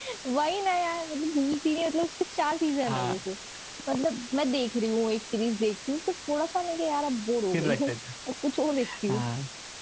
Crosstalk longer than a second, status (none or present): none